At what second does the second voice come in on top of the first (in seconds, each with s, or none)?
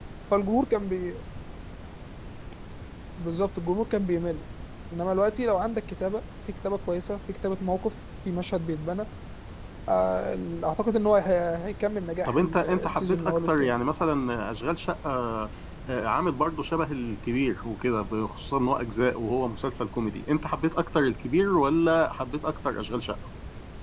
12.2 s